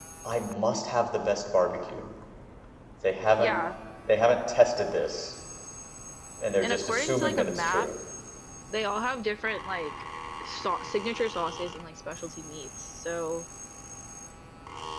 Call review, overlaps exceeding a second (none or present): present